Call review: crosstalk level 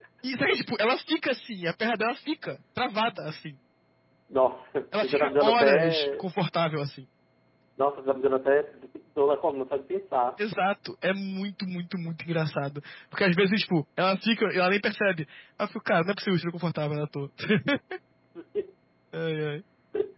present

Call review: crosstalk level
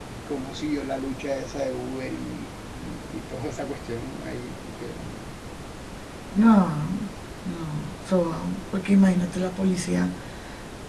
none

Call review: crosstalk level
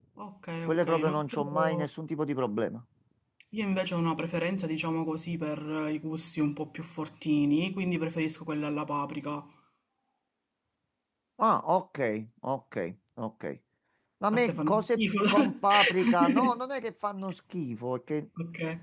present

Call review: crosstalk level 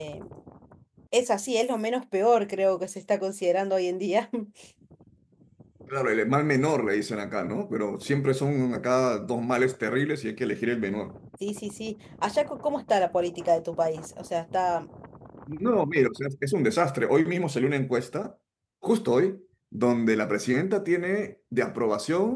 none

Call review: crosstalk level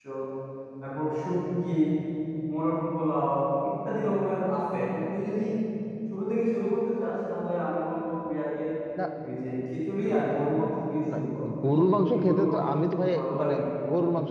present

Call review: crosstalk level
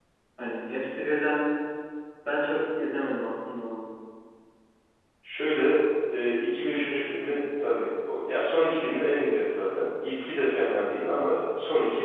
none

